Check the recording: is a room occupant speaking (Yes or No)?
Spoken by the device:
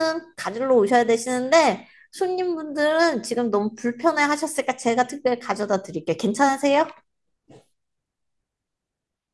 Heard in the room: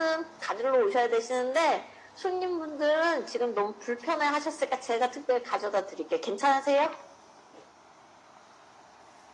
No